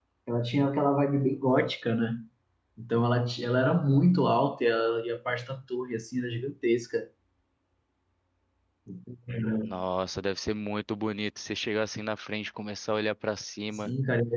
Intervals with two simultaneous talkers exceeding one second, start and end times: none

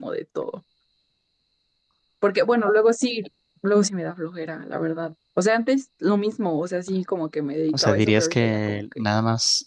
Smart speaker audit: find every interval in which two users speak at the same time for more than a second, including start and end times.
7.7-9.0

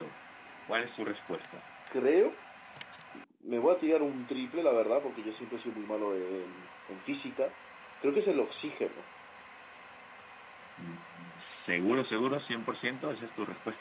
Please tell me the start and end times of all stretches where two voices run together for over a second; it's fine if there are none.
none

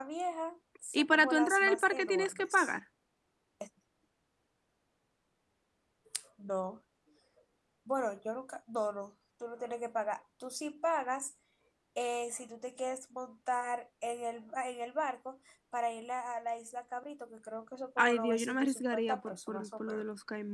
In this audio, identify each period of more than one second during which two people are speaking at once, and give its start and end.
0.9-2.7, 18.0-20.0

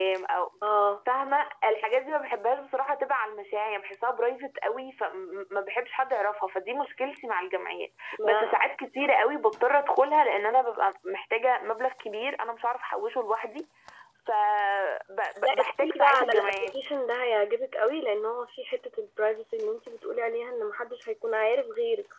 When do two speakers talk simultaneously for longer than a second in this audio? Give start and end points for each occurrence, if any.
15.4-16.7

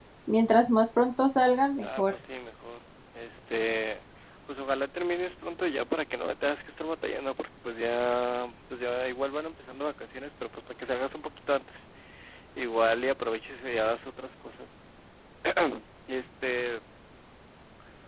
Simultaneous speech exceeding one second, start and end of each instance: none

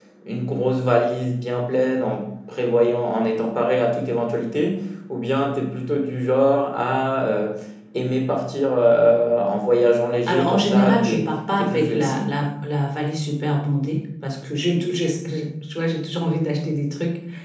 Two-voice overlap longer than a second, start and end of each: 10.3-12.3

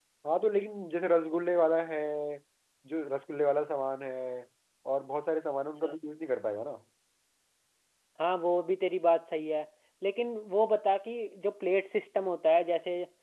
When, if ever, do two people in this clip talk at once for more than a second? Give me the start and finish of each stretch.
none

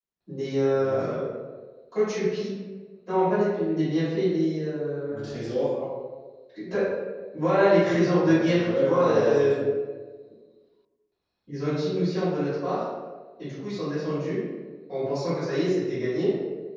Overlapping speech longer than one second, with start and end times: 8.2-9.5

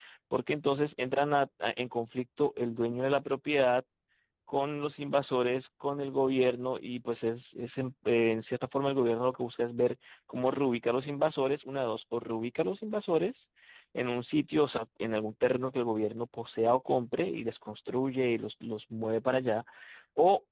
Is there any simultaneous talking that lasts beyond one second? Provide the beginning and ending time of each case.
none

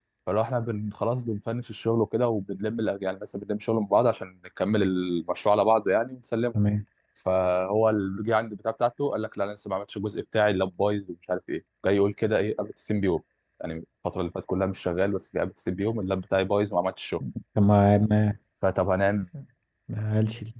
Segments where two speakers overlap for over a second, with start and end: none

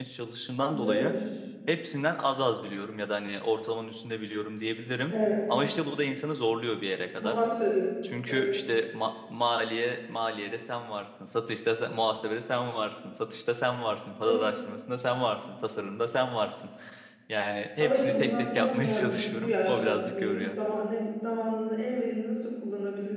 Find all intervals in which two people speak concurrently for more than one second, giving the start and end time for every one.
17.8-20.6

